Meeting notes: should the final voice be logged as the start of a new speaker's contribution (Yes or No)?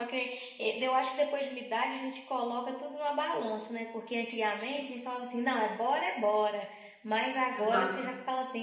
No